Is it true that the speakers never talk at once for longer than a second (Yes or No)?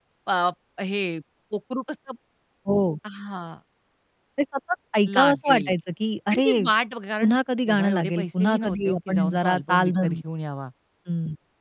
No